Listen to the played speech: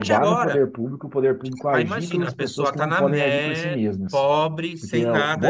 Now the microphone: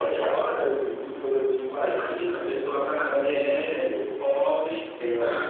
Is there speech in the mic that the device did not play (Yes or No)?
No